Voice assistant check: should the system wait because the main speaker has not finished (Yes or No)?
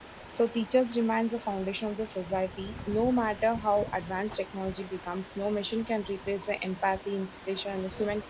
Yes